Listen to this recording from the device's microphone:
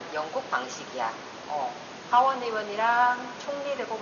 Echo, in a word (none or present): present